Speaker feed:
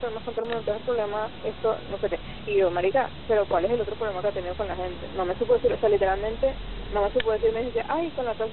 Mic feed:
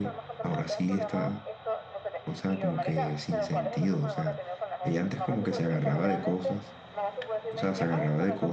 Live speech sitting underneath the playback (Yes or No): No